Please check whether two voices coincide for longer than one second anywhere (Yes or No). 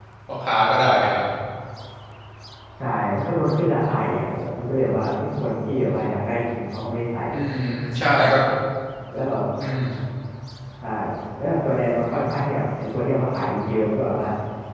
No